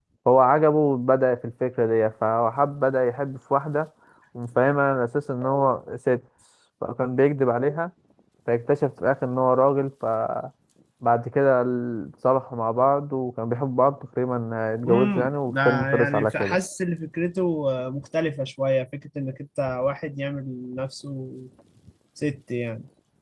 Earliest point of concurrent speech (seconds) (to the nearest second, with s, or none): 15 s